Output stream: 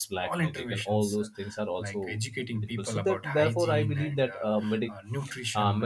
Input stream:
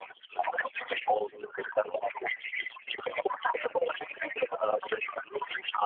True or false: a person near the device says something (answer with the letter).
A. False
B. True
A